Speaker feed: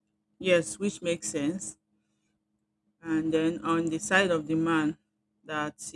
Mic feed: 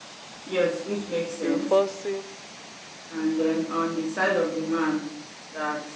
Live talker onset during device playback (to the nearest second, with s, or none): 1 s